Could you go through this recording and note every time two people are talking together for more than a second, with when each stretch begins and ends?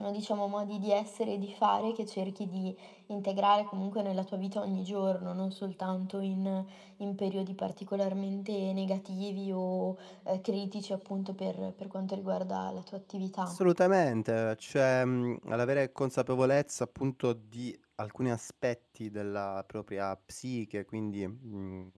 none

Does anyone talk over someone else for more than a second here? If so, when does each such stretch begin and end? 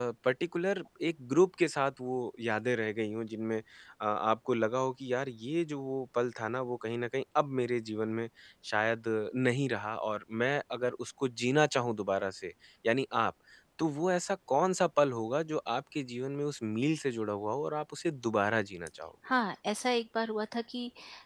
none

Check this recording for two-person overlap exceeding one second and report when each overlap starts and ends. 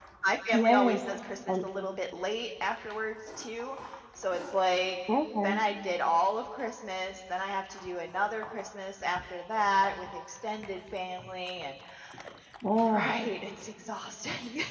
none

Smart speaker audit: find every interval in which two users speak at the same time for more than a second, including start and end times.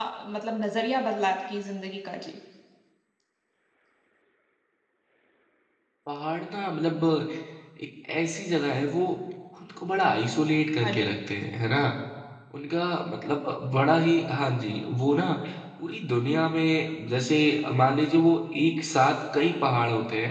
none

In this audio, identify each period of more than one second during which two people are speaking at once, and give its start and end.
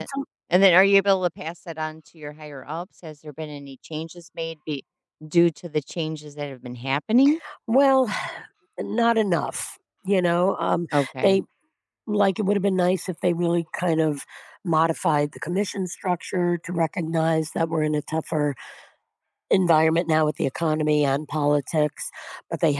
none

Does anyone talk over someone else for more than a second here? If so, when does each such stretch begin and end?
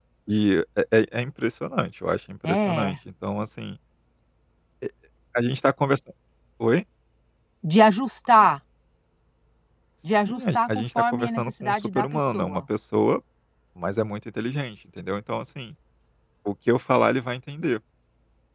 10.0-12.6

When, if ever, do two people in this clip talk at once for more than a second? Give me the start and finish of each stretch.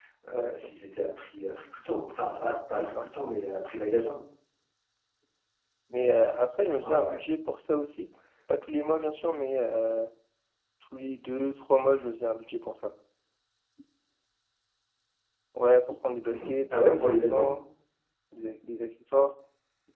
16.3-17.5

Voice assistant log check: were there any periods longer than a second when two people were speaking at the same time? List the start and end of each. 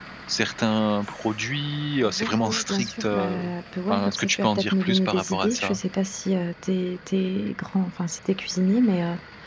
2.0-3.4, 3.9-5.8

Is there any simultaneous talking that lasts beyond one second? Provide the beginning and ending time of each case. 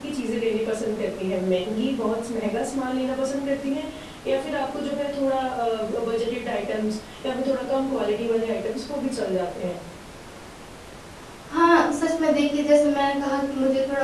none

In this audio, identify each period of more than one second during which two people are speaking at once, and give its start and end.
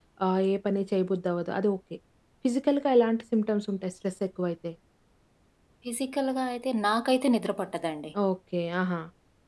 none

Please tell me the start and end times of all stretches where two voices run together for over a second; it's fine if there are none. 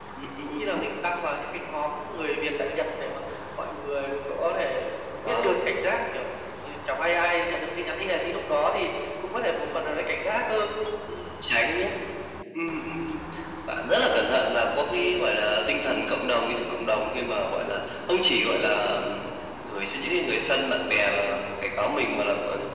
none

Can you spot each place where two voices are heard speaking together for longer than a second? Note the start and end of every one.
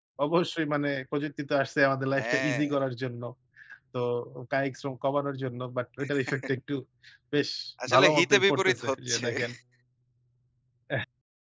7.9-9.3

